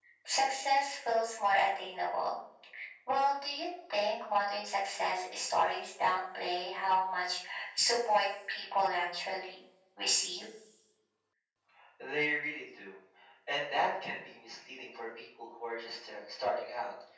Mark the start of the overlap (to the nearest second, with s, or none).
none